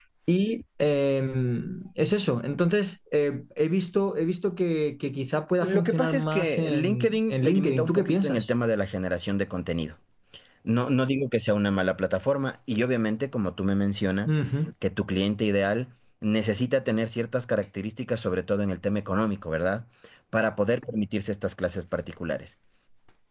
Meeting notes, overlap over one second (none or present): present